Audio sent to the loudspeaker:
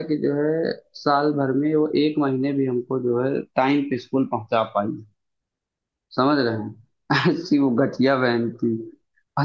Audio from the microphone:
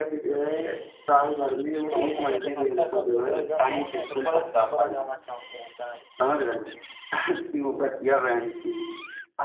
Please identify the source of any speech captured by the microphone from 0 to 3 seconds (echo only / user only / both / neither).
both